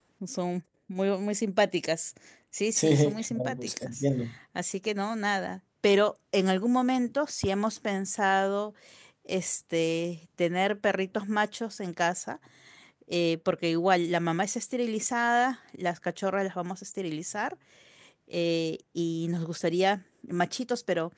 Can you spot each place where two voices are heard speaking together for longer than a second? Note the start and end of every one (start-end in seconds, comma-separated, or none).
2.8-4.0